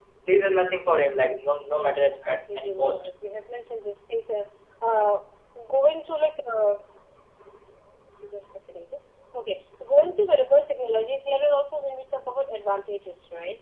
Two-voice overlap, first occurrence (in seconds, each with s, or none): 1.7 s